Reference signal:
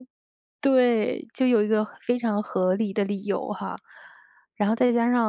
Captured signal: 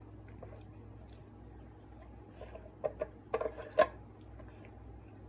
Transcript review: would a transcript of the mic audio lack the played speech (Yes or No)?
Yes